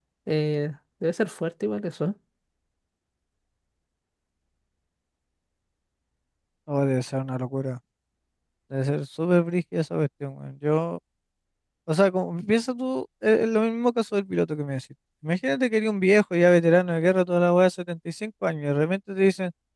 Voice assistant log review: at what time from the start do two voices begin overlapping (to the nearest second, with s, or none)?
none